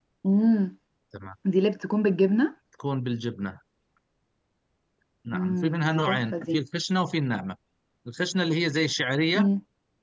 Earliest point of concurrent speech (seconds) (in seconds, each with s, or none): 5.3 s